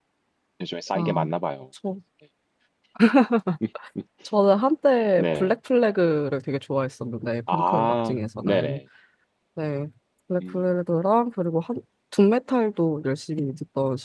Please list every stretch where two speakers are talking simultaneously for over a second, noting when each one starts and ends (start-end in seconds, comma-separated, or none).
7.5-8.8